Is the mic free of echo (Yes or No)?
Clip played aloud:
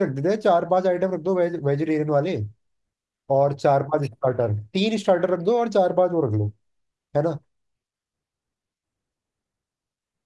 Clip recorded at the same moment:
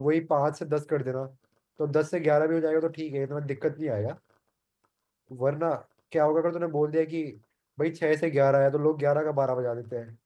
Yes